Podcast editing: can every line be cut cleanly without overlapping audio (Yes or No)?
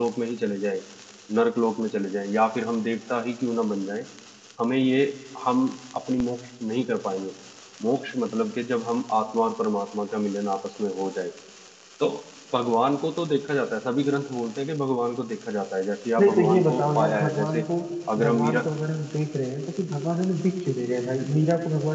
No